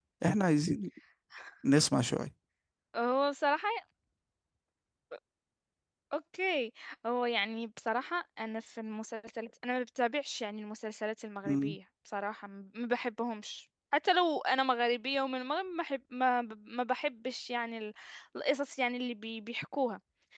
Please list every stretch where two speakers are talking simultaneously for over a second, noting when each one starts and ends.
none

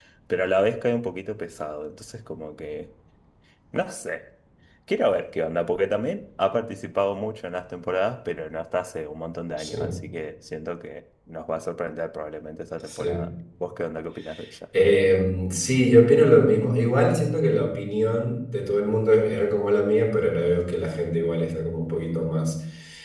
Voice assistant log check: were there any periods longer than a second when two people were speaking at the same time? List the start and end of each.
none

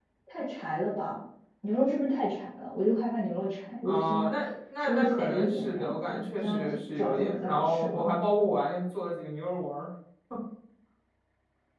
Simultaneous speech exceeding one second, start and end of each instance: 4.8-8.0

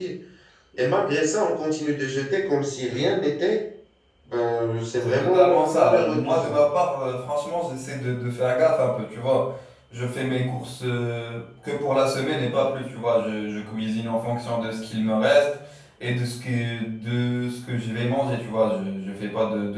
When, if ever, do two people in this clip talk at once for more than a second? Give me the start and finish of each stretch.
5.0-6.5

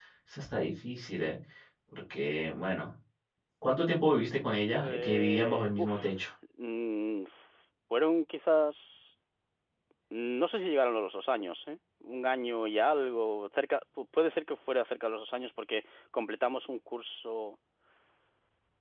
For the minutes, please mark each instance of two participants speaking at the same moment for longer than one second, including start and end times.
4.8-6.1

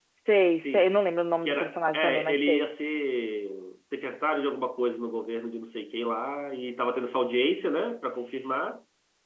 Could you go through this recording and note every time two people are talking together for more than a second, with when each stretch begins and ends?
1.4-2.6

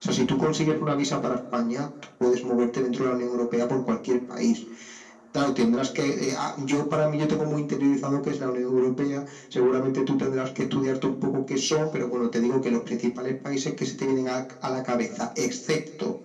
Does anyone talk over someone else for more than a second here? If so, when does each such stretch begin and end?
none

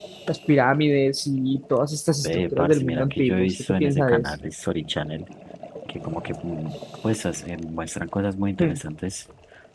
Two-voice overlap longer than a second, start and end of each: 2.2-4.3

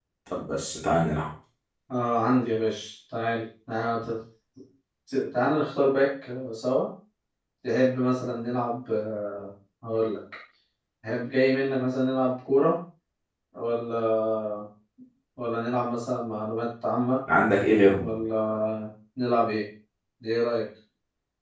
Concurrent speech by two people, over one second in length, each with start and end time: none

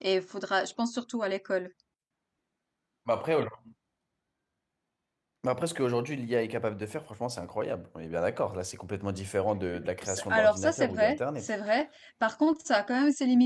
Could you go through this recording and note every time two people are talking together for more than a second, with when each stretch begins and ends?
10.0-11.5

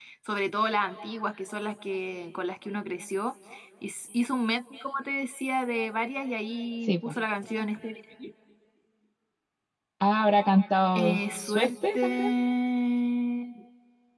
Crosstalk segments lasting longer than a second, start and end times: 11.0-12.3

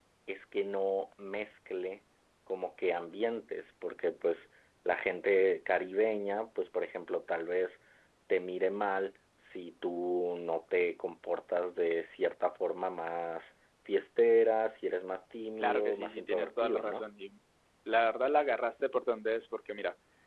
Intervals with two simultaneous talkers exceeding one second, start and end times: 15.6-17.1

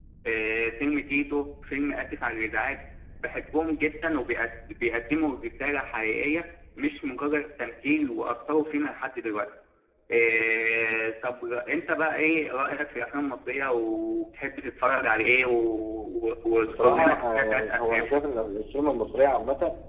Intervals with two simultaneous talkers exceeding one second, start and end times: 16.6-18.0

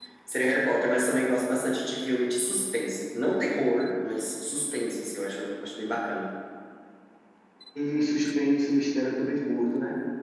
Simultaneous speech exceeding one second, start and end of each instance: none

